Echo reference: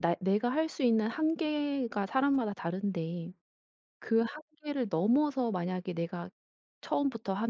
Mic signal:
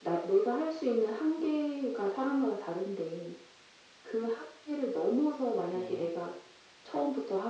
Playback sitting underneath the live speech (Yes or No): No